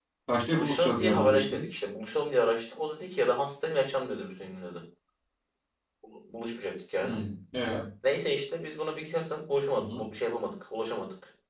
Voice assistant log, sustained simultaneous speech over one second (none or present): present